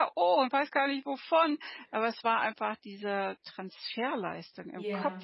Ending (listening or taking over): taking over